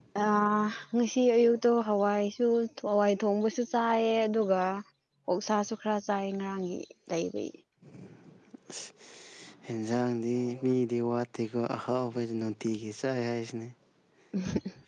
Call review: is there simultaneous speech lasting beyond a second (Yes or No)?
No